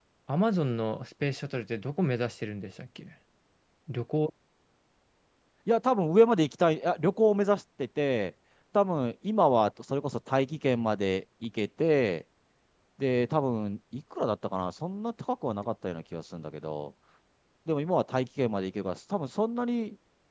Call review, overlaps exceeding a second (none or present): none